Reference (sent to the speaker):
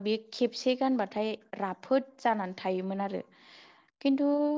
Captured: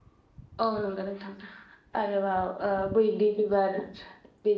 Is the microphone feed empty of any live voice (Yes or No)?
No